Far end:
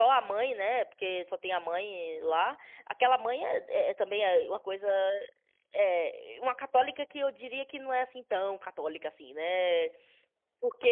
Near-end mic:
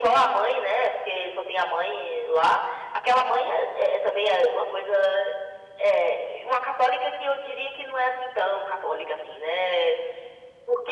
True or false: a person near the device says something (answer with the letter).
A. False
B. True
A